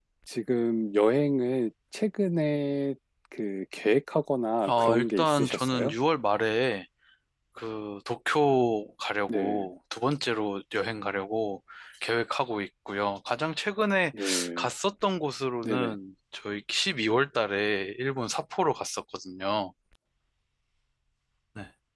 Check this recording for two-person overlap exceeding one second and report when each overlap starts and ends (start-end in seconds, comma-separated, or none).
4.7-5.9